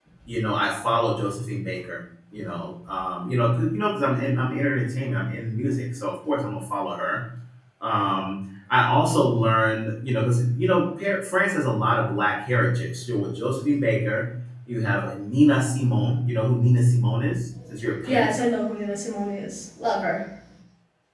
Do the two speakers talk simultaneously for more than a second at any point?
No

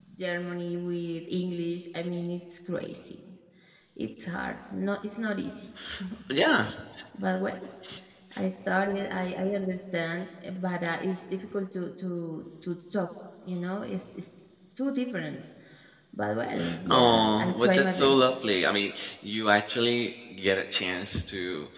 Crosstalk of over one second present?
Yes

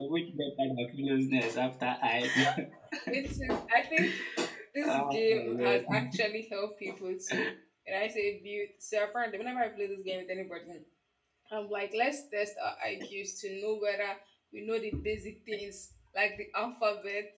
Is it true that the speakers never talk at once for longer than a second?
No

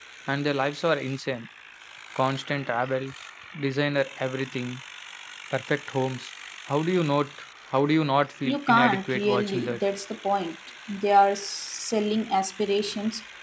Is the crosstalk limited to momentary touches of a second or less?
No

